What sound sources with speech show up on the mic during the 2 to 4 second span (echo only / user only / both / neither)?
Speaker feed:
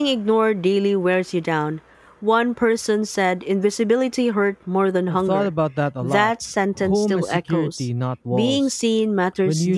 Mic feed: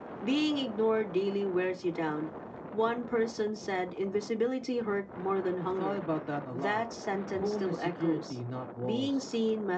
echo only